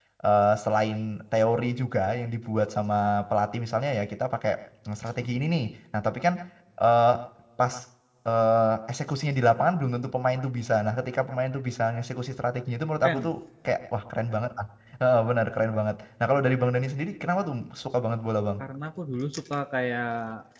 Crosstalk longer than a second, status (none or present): none